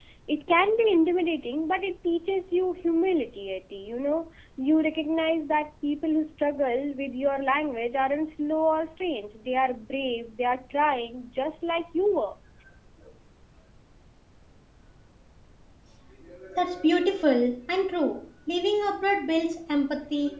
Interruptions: none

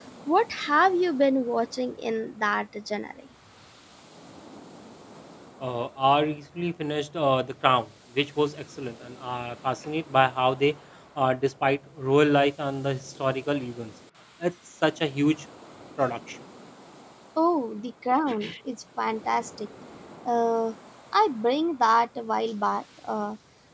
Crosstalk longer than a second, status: none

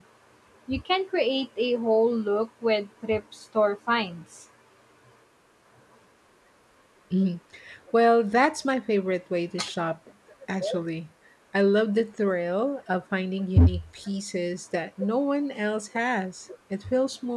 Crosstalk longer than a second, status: none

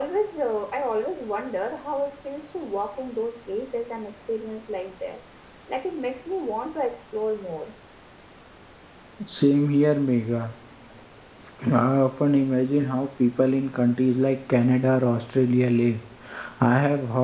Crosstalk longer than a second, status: none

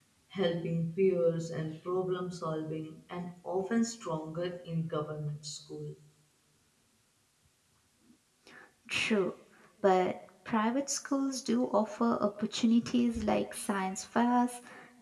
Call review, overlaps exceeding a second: none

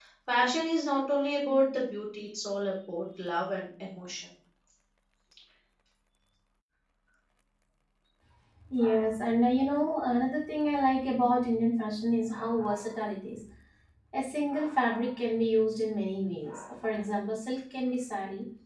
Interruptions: none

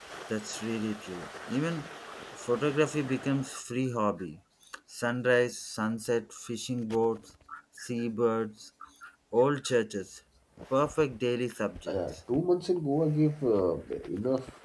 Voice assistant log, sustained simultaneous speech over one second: none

